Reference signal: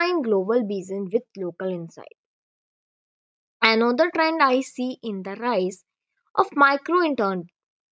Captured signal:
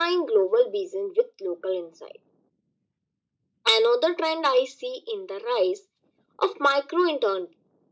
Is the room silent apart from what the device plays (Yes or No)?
Yes